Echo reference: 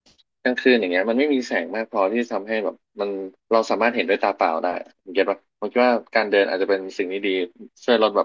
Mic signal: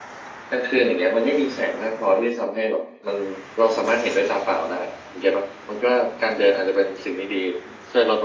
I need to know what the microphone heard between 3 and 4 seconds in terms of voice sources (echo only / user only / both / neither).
echo only